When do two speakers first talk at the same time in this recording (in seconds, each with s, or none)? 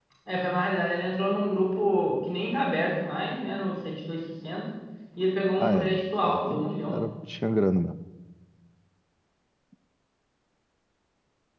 5.6 s